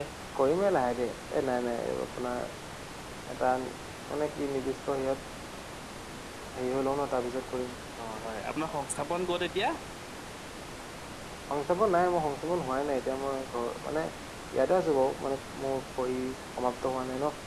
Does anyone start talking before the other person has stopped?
No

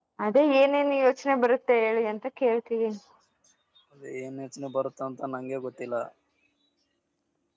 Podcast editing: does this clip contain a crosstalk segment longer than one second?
No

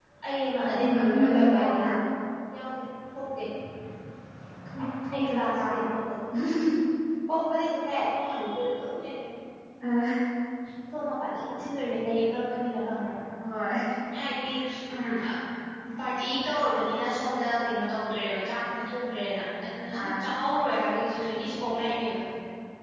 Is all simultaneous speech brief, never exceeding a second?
No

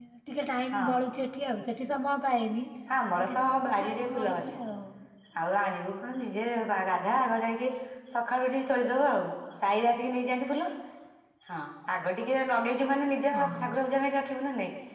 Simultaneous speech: Yes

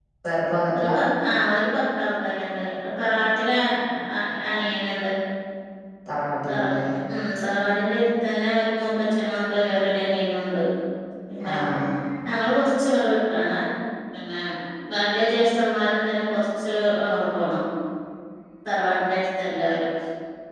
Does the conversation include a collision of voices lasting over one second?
No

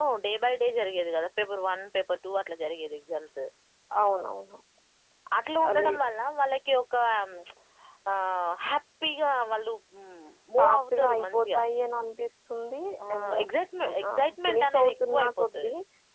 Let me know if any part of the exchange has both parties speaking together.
Yes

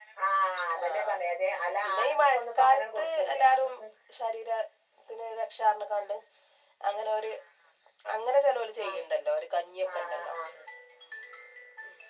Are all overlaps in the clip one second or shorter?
No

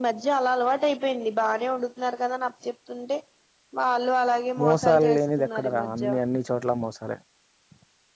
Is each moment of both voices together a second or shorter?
No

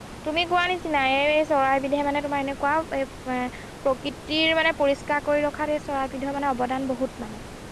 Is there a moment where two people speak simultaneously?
No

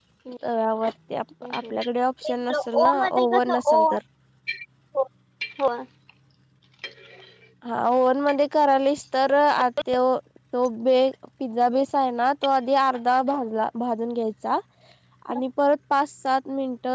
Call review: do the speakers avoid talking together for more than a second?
No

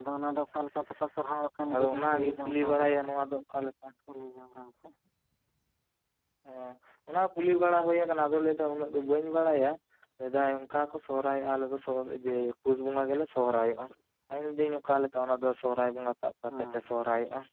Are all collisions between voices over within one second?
No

